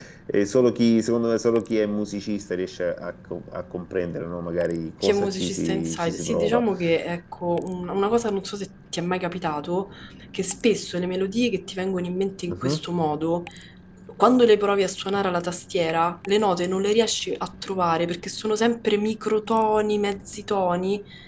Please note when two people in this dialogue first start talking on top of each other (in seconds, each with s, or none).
5.0 s